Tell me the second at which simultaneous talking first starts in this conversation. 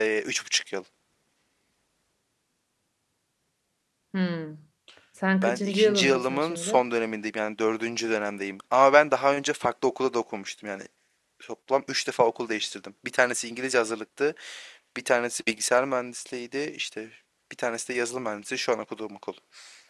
5.4 s

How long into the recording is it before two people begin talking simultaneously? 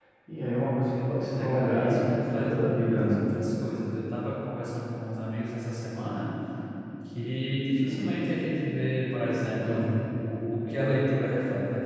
1.2 s

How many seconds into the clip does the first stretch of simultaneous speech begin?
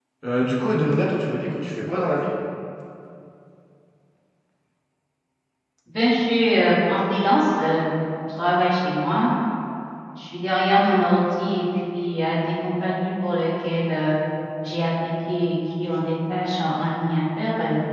none

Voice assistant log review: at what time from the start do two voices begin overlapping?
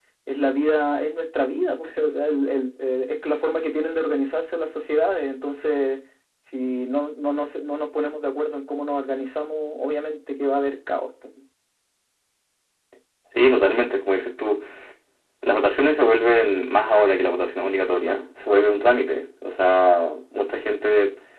none

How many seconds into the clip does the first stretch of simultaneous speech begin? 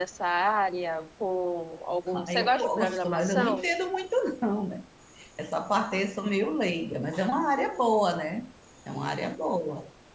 2.1 s

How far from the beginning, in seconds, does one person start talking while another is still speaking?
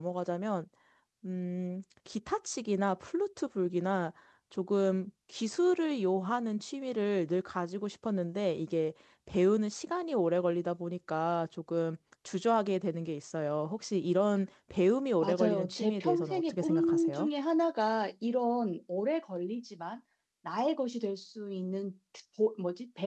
15.2 s

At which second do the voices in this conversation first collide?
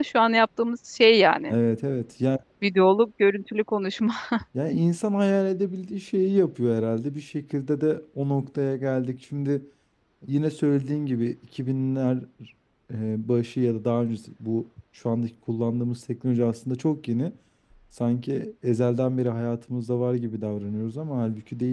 none

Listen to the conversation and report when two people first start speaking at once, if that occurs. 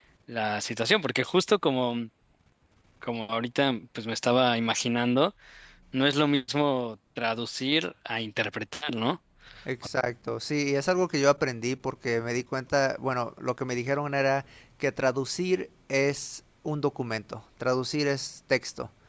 none

